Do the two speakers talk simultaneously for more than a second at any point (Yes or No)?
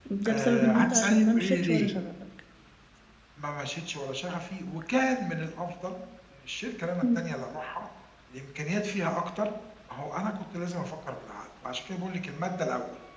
Yes